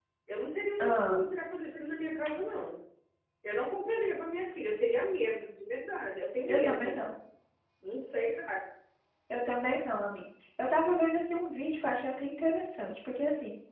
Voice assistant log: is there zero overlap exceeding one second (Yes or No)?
Yes